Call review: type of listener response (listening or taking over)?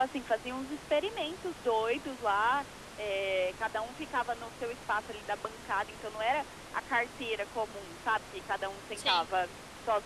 listening